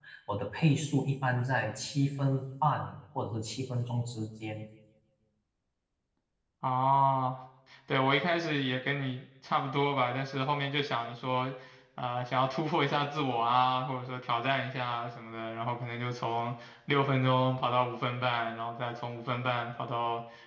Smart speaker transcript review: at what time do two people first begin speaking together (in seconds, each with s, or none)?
none